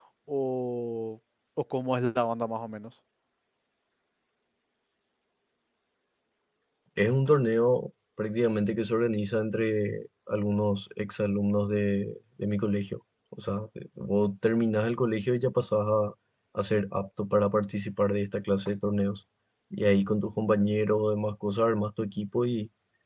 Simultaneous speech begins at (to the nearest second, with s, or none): none